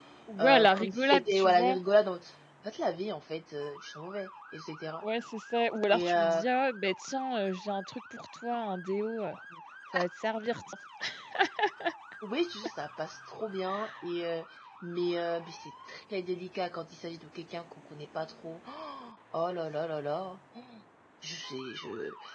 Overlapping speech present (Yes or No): Yes